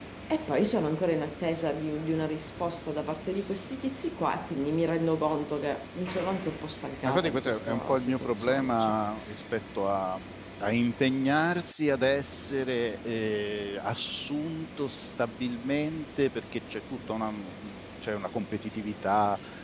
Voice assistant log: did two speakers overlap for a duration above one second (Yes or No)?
Yes